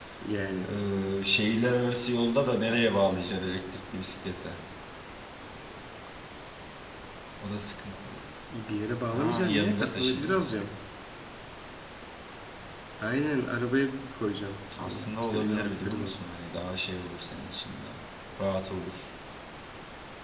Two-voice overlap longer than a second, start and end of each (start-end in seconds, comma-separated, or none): 9.1-10.6, 14.8-16.2